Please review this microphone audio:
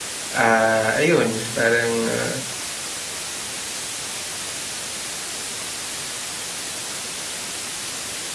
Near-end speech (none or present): present